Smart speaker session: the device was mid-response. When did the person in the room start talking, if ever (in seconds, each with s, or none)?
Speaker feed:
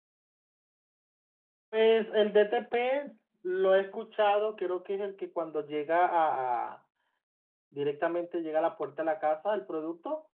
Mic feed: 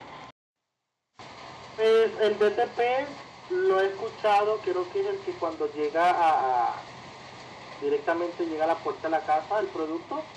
none